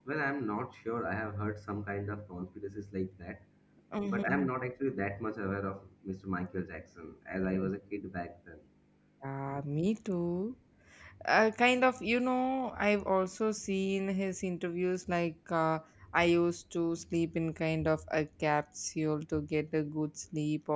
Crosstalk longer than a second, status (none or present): none